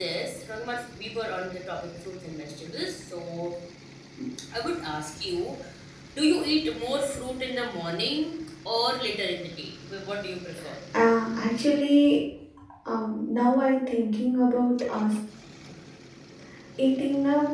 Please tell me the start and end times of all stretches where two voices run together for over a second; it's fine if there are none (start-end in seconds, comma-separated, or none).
none